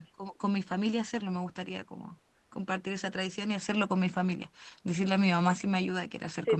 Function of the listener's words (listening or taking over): taking over